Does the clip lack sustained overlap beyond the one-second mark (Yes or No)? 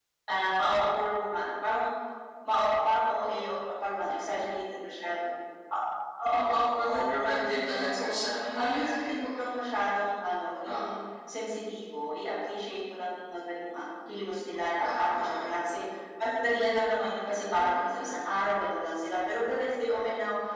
No